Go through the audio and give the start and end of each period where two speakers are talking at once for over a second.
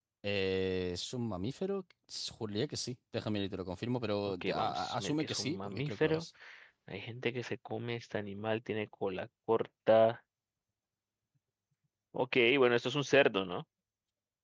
4.4-6.2

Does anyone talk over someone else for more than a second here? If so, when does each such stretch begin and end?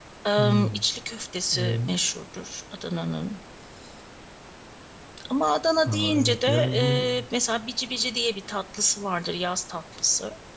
5.8-7.2

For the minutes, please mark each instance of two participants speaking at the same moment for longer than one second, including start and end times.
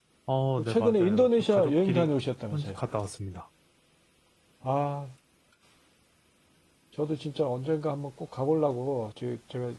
0.7-2.1

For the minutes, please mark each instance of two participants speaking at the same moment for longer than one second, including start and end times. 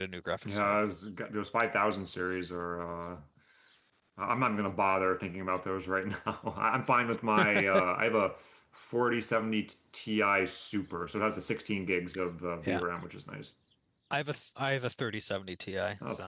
none

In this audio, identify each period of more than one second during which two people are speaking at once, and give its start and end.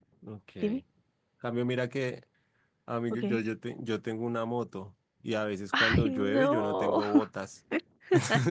5.8-7.0

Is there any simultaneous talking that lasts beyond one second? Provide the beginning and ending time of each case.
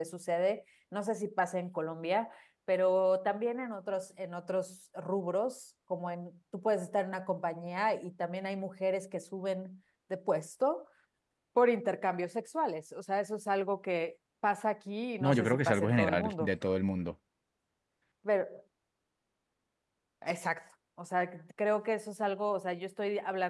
15.2-16.5

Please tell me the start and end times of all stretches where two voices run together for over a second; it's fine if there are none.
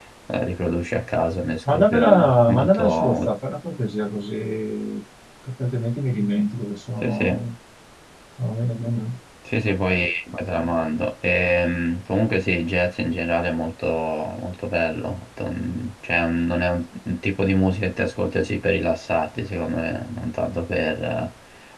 1.7-3.3

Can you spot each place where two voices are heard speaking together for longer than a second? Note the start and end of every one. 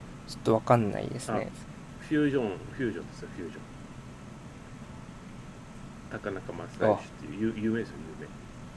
none

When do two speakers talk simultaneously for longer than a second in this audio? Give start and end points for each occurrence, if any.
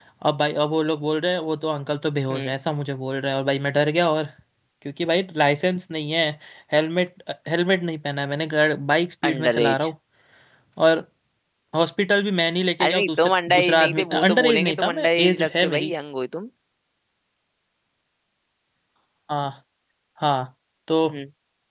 12.8-15.9

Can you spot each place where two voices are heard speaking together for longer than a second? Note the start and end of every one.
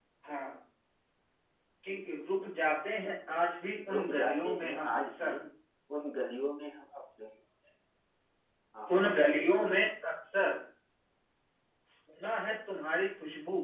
3.9-5.4

